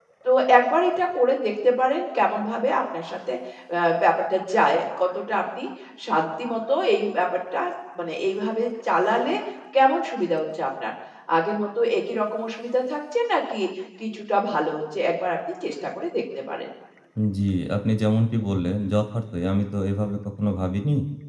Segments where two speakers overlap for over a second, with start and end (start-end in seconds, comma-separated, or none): none